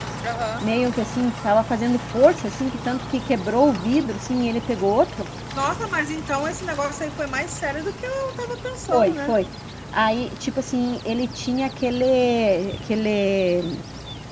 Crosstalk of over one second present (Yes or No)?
No